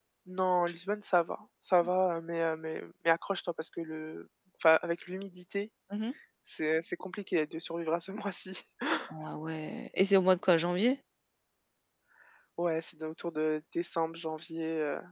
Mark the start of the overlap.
none

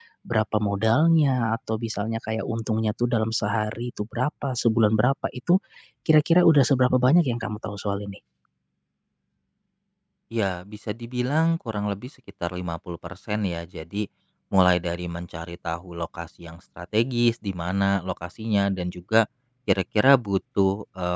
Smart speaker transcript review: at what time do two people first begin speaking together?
none

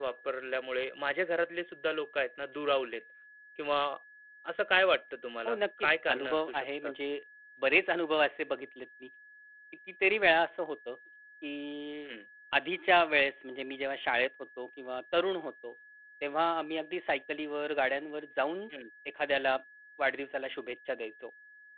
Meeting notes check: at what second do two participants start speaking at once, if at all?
5.5 s

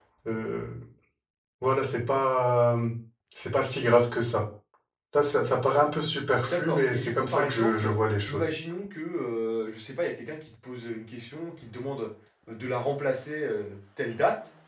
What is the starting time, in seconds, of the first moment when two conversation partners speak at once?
6.5 s

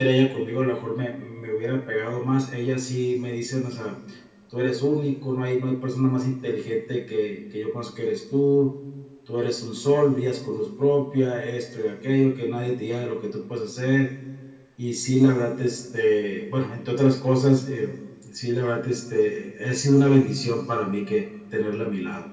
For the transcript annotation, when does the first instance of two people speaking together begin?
none

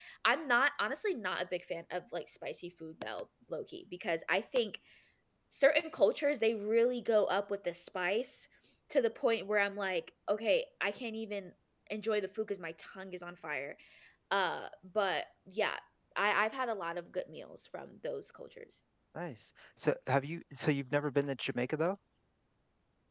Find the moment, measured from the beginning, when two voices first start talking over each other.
none

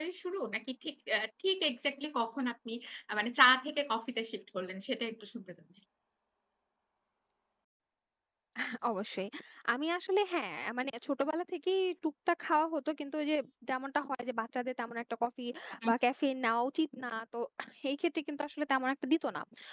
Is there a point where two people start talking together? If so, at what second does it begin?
none

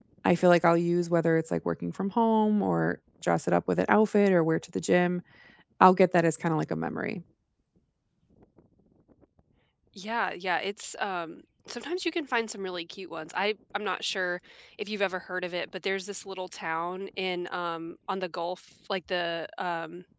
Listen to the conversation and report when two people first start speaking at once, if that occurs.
none

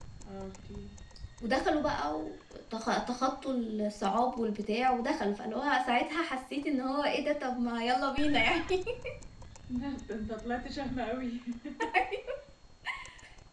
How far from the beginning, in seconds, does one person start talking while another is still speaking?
none

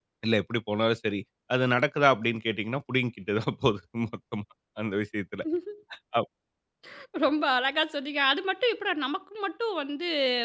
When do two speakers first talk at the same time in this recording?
none

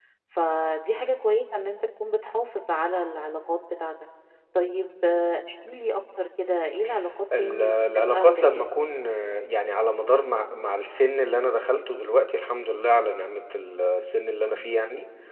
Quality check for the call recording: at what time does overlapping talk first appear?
7.3 s

